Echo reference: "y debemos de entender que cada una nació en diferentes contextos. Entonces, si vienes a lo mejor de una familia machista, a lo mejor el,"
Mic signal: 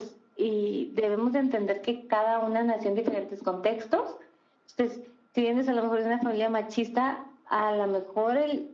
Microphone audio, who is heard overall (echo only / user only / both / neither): echo only